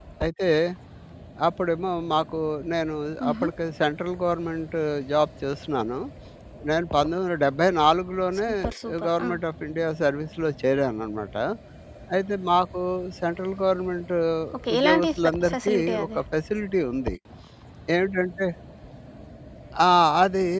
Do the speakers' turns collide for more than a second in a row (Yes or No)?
Yes